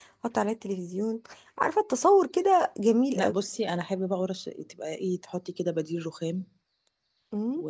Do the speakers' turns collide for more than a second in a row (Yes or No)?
No